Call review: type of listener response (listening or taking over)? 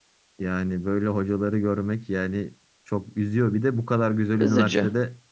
listening